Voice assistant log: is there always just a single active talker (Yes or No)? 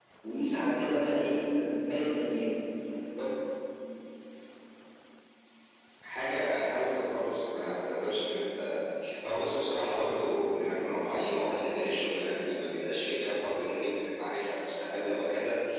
Yes